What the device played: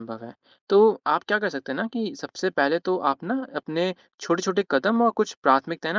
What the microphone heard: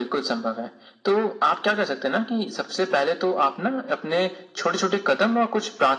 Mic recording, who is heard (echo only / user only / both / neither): echo only